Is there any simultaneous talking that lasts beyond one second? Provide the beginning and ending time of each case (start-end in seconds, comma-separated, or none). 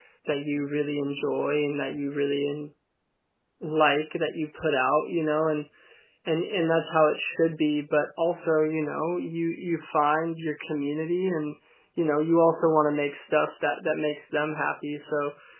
none